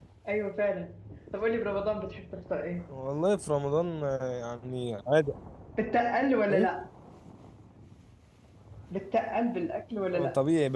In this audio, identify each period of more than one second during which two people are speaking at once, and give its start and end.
none

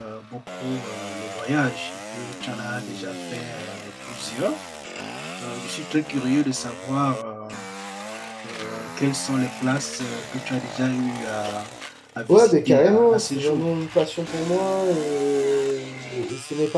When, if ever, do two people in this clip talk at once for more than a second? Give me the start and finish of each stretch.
12.3-13.7

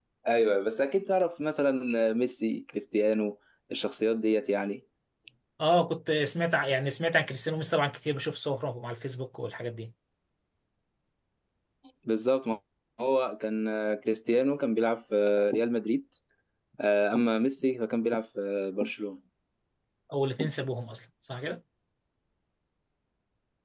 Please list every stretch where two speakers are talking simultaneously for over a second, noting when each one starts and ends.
none

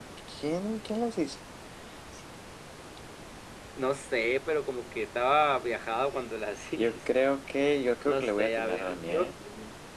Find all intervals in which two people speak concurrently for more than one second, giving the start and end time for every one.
8.1-9.3

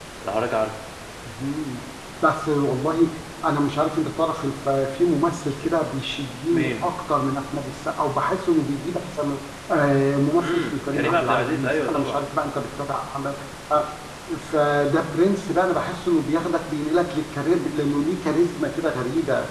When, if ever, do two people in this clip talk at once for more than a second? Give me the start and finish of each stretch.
10.4-12.2

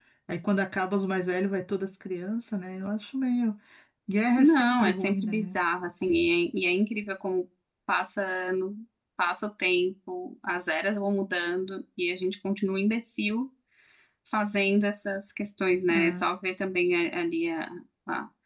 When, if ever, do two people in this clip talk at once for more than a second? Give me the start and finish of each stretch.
4.4-5.6

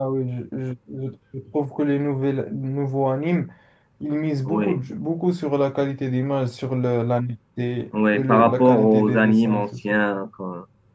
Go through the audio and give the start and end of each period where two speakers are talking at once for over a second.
8.1-10.0

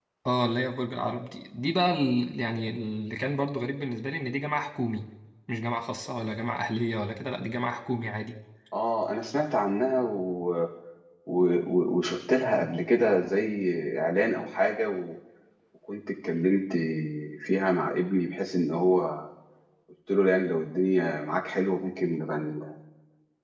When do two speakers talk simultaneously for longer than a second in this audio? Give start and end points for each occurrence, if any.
none

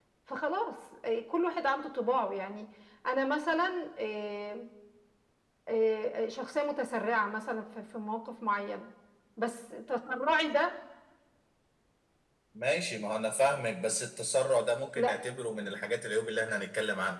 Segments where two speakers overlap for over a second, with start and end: none

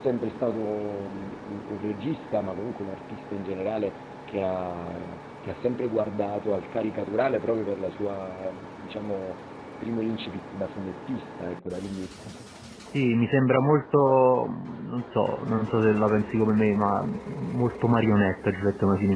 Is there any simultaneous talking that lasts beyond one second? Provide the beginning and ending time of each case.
none

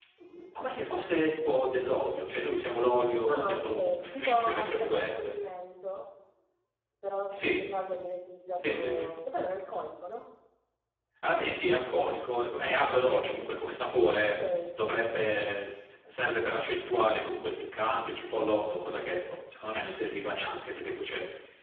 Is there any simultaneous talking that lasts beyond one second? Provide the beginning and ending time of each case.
3.3-5.4

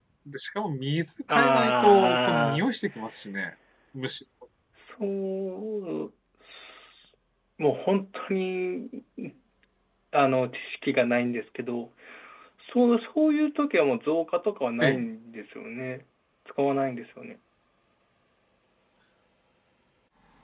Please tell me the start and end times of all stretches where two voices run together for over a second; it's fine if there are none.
1.3-2.6

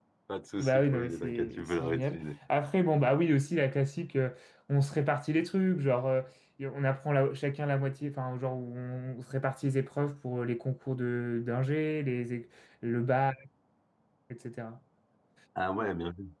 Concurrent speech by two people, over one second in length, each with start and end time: 0.6-2.2

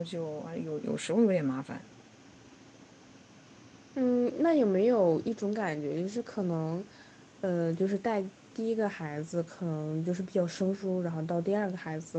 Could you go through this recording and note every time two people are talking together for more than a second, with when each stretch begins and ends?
none

